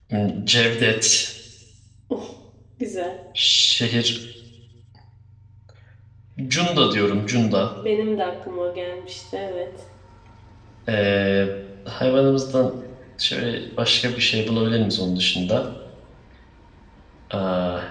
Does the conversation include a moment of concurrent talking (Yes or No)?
No